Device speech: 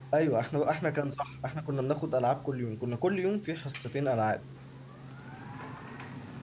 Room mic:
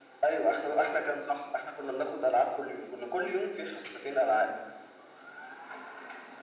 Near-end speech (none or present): none